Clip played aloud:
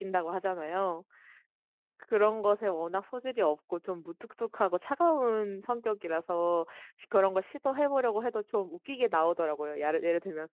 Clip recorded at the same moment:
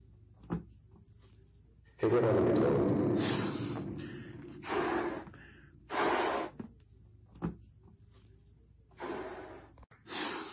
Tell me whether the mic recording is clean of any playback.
Yes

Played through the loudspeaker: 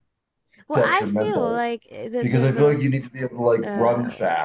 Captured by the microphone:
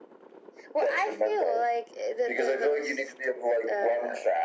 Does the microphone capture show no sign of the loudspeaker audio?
No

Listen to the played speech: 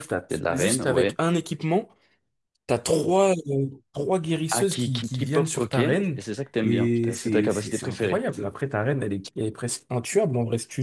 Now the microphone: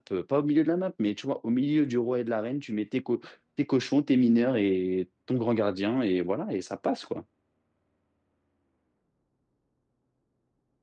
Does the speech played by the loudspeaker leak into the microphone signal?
No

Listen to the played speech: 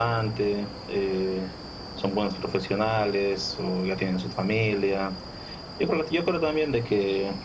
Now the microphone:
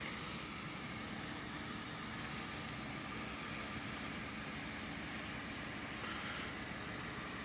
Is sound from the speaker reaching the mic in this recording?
No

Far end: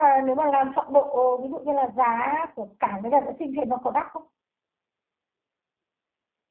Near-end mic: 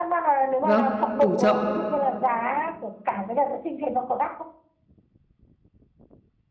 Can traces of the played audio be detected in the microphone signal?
Yes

